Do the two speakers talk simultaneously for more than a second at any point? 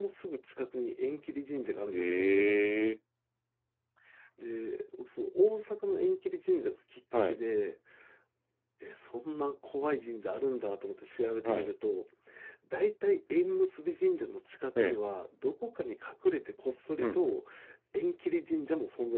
No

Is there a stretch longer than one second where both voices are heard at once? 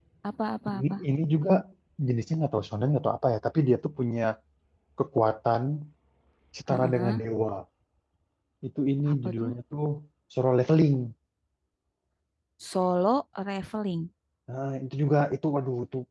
No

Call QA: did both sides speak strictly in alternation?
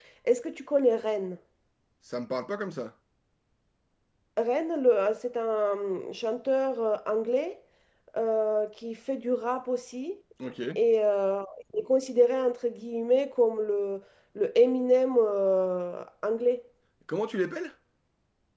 Yes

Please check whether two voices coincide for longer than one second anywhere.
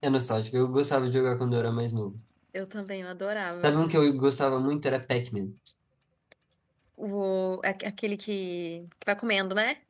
No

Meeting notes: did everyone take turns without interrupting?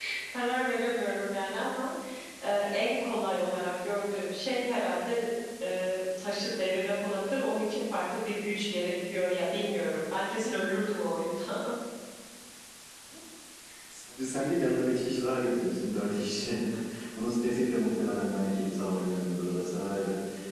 Yes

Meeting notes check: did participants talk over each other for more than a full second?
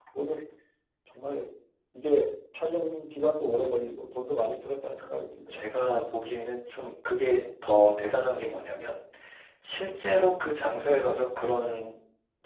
No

